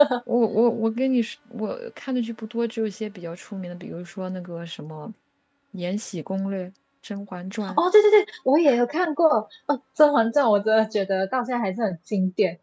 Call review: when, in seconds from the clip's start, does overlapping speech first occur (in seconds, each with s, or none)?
none